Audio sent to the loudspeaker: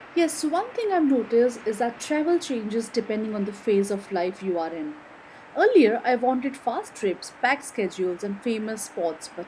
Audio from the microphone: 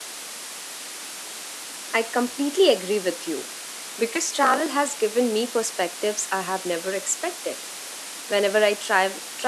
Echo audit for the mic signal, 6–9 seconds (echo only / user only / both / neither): user only